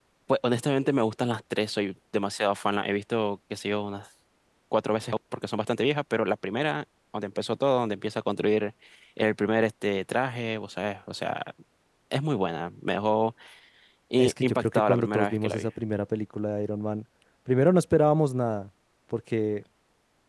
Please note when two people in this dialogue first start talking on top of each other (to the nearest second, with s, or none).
14 s